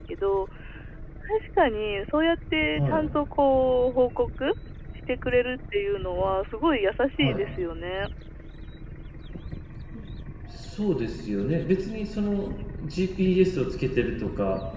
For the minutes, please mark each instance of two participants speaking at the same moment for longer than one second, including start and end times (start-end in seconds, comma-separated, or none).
none